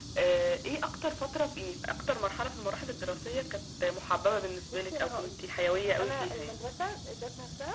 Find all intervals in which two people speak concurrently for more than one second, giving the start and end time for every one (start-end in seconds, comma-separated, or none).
4.6-6.6